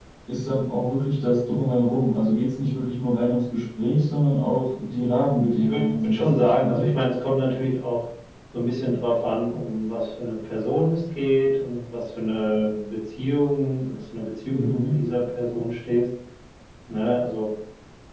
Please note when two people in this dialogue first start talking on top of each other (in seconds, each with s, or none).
5.6 s